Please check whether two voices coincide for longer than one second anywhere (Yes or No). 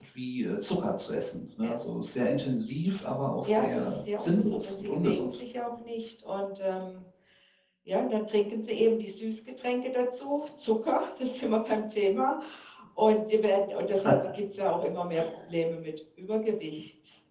Yes